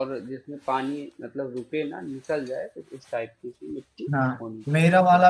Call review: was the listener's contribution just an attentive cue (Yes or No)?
No